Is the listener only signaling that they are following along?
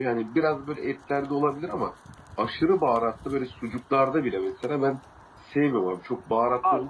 No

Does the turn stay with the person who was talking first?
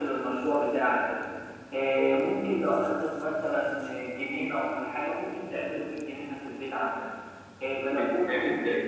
Yes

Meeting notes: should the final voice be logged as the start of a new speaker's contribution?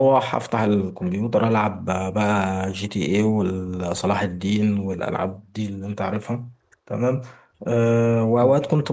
No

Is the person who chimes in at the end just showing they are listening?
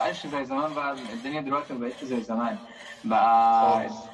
Yes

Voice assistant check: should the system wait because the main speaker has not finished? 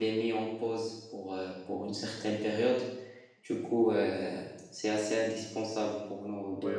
No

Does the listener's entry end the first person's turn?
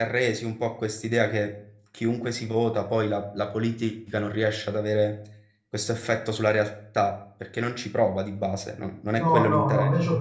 Yes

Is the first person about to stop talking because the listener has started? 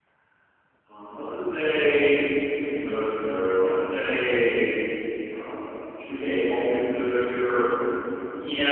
Yes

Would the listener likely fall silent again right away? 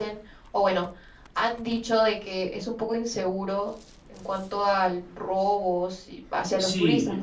No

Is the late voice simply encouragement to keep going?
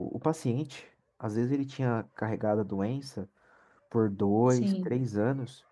Yes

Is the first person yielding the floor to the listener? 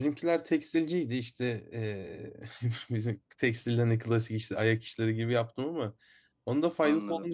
No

